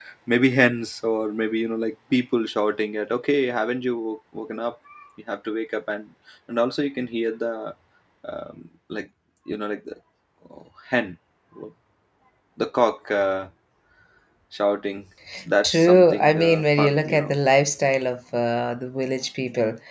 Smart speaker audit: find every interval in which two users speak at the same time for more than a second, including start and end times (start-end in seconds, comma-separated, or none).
15.6-17.3